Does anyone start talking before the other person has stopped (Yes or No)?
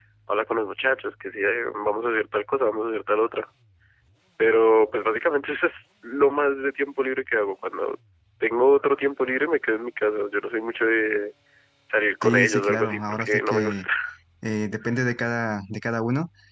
Yes